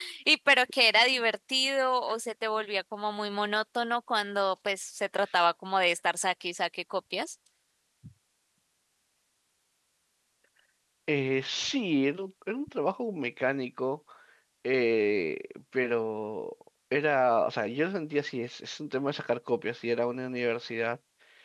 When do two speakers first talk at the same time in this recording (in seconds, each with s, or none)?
none